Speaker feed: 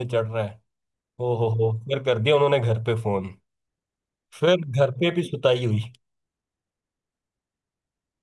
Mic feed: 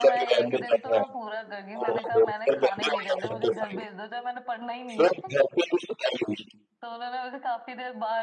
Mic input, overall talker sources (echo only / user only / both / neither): both